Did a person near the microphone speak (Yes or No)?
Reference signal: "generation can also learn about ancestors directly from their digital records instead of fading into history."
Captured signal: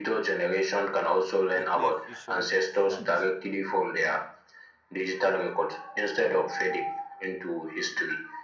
Yes